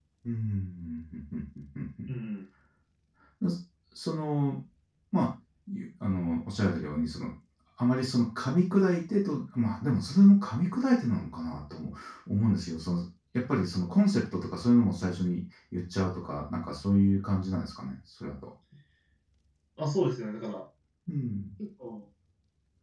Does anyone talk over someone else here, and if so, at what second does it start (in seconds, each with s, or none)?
none